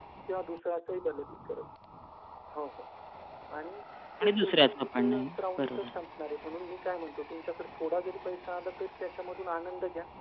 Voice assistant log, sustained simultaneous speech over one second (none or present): present